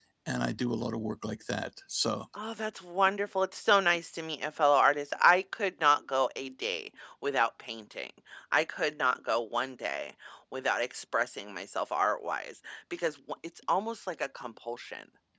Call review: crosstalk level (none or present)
none